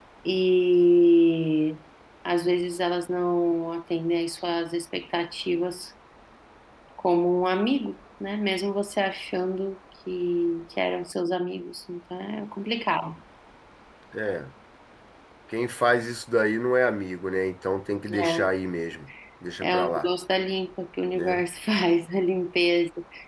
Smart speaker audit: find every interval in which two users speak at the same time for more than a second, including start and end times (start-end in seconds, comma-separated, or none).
none